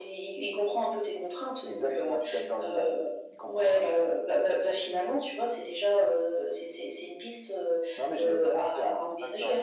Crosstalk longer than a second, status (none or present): present